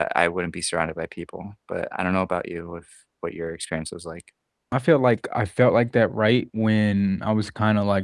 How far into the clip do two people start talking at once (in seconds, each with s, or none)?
none